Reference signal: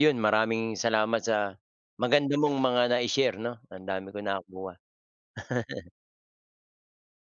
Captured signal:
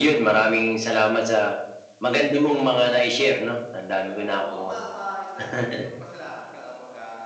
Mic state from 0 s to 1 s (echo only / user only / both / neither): echo only